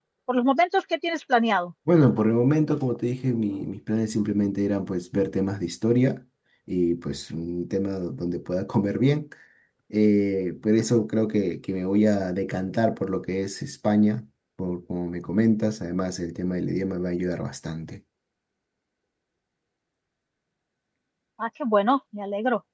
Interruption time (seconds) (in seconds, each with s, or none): none